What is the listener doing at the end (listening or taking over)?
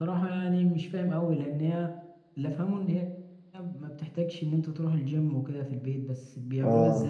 taking over